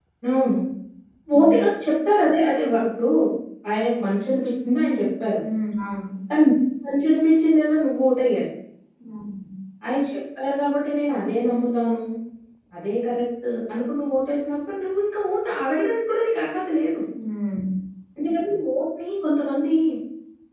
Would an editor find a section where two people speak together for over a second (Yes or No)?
No